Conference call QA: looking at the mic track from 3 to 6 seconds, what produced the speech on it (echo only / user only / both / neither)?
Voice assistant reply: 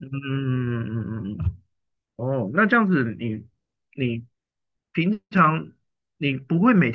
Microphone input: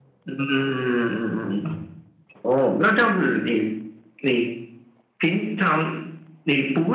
echo only